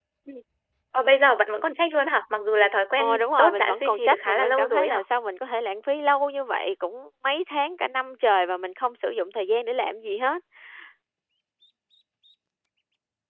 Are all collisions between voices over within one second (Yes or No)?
No